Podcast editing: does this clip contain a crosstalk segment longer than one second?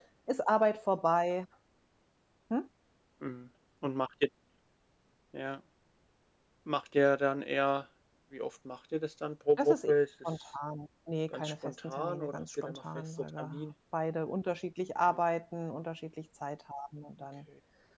Yes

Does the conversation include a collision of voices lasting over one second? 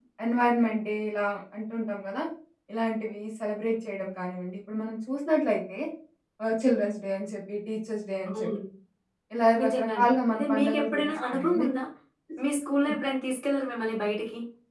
Yes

